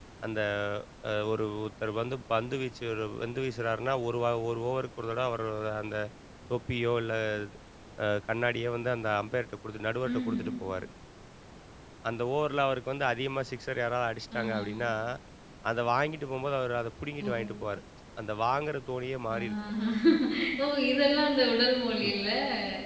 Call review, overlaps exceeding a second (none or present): none